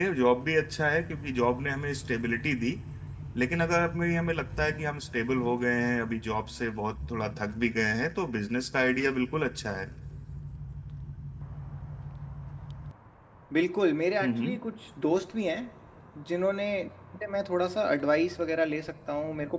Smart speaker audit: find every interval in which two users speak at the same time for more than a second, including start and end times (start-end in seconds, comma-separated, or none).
none